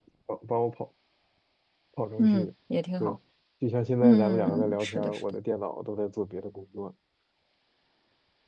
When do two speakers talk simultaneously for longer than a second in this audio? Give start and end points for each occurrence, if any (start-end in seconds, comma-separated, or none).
4.0-5.2